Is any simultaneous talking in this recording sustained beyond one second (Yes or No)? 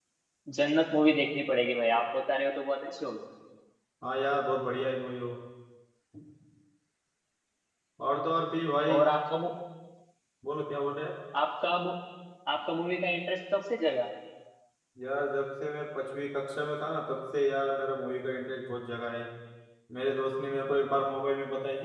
No